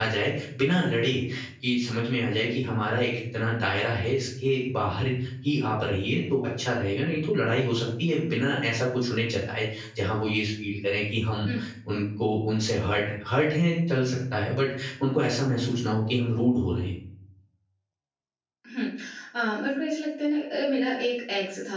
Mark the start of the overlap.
none

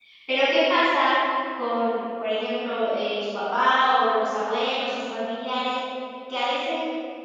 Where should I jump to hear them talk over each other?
none

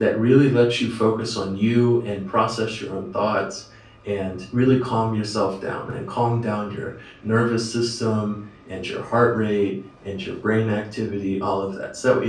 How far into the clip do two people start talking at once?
none

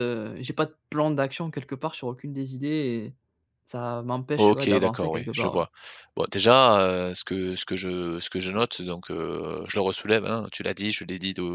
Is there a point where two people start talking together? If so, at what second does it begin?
4.4 s

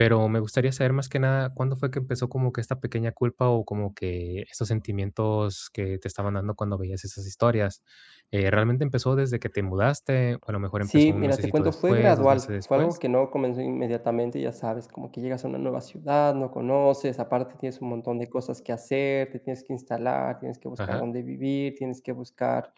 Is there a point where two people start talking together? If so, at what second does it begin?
10.9 s

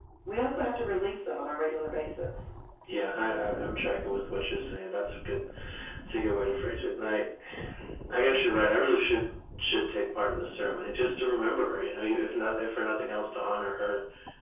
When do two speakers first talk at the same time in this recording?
none

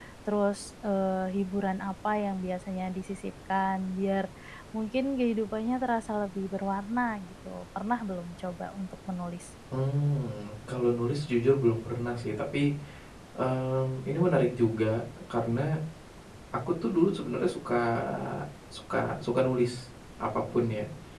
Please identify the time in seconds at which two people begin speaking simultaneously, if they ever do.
none

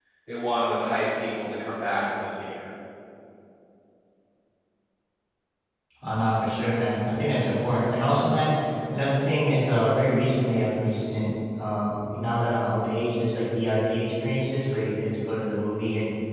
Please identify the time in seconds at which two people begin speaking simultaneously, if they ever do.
none

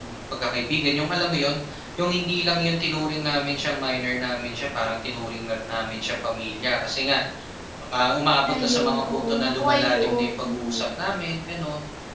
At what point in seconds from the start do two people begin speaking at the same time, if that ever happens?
8.6 s

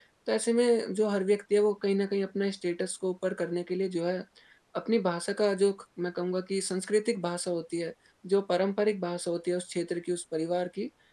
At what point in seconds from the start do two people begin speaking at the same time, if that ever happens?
none

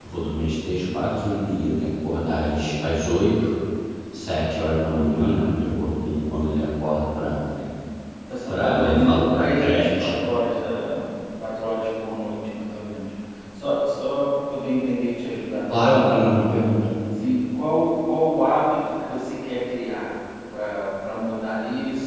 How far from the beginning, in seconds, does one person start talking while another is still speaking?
8.5 s

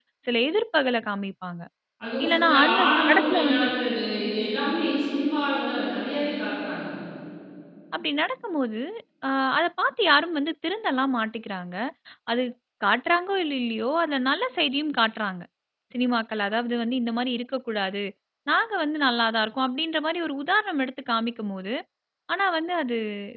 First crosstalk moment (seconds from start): 2.2 s

